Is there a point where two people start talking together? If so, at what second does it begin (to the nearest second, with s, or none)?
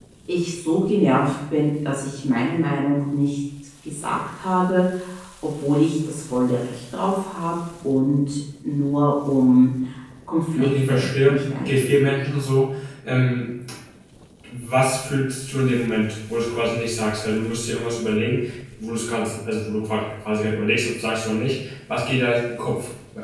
11 s